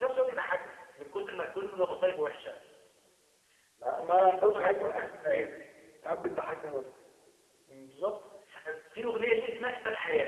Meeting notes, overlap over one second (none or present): present